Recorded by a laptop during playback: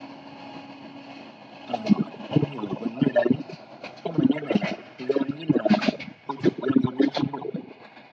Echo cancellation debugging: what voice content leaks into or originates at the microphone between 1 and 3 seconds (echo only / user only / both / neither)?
echo only